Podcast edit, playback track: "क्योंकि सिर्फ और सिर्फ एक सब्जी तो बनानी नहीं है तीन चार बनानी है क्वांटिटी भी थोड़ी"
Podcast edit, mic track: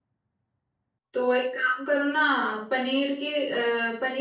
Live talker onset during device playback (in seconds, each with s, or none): 1.1 s